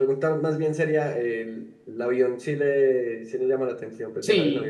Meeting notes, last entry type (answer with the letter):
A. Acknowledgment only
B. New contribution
B